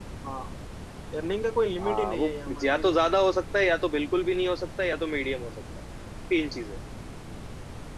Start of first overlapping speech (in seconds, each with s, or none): 1.8 s